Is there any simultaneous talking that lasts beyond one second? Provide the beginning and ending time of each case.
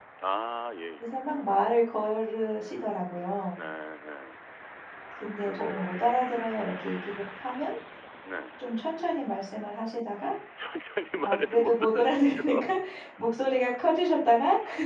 11.2-12.6

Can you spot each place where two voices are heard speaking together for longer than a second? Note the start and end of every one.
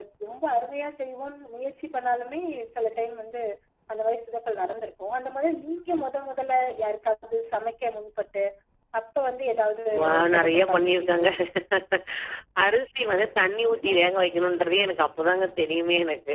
10.0-11.3

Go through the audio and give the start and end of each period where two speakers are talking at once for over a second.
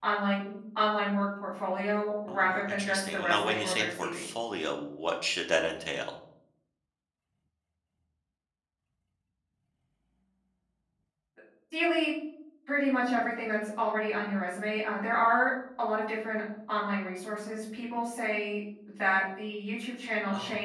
2.3-4.2

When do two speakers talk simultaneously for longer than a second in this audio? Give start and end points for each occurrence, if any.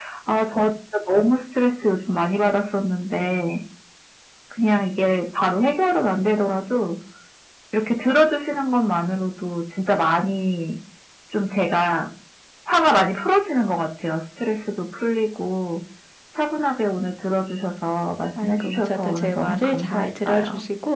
18.4-20.4

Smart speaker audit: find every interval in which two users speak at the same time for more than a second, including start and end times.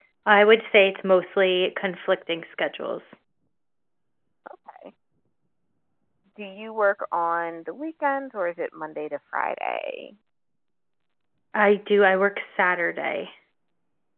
none

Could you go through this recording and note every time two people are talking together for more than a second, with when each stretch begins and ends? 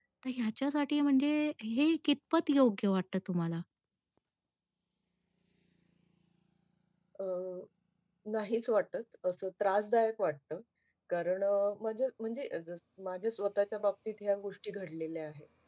none

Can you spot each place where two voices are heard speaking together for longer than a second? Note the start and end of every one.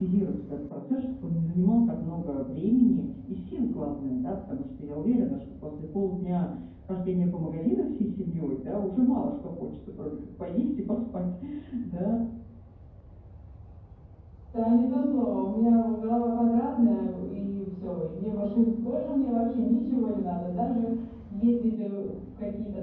none

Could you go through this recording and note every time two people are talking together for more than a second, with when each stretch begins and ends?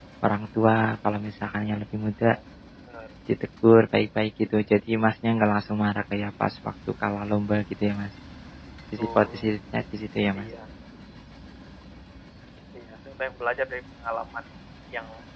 none

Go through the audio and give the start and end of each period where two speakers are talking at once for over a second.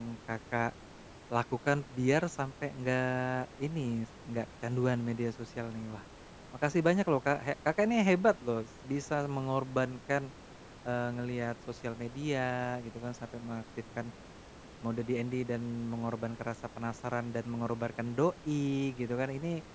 none

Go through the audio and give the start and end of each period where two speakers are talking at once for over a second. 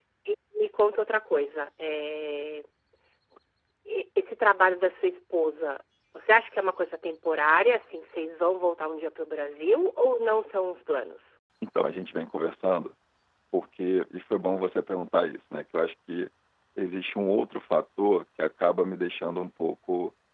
none

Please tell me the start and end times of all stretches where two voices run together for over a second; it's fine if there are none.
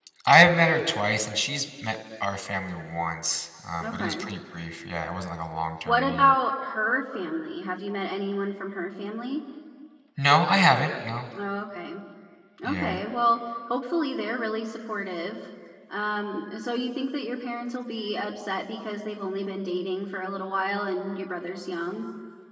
none

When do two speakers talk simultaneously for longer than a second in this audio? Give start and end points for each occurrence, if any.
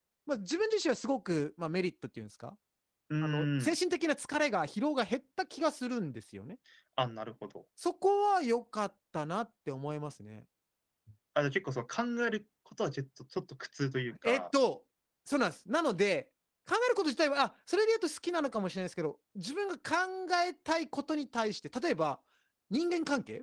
none

